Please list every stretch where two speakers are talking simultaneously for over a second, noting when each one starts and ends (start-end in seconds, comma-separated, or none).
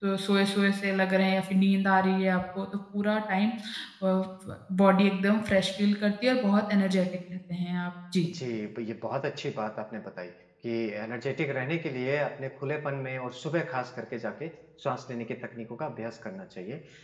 none